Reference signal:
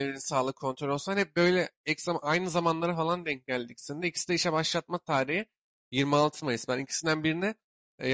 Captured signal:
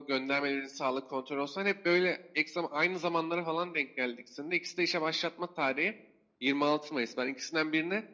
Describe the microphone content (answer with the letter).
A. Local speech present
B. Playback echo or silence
B